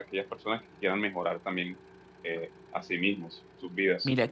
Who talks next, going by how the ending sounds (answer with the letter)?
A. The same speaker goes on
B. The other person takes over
B